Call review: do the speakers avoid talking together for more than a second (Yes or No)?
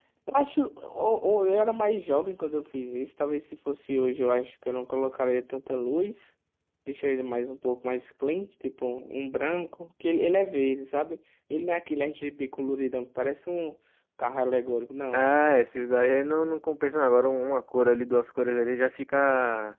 Yes